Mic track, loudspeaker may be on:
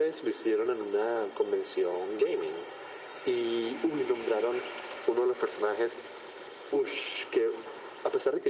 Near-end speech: none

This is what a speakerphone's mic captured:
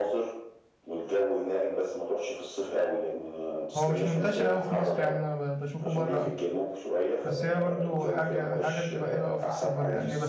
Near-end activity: present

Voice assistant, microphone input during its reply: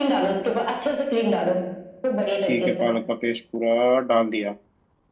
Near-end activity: present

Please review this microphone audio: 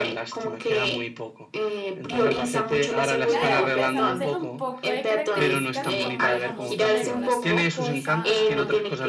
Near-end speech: present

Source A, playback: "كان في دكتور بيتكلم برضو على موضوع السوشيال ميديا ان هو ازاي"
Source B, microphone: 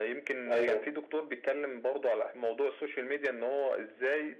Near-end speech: present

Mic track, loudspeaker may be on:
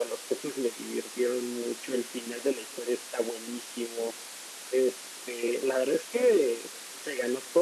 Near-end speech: none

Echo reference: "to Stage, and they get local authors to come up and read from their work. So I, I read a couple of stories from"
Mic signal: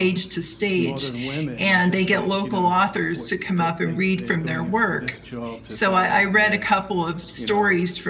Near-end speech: present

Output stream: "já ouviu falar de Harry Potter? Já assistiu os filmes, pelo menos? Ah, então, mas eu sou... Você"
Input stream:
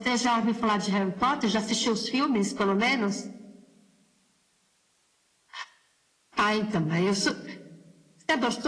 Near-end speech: none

